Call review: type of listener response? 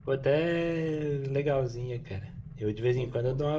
listening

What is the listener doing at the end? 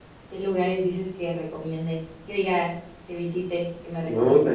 taking over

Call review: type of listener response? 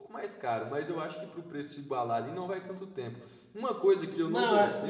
taking over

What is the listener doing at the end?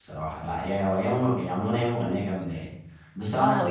taking over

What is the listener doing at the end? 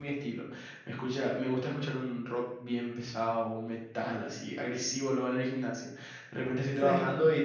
listening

